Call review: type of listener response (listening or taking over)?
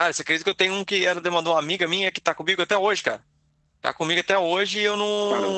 taking over